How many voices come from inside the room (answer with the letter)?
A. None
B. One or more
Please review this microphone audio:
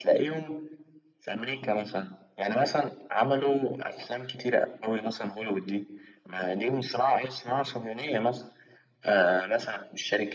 A